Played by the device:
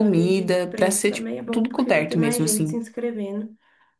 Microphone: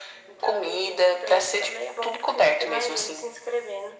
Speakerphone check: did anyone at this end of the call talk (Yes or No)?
No